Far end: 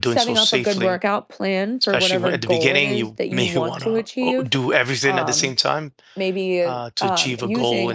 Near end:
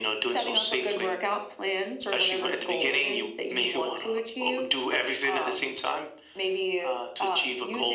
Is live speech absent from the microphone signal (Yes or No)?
Yes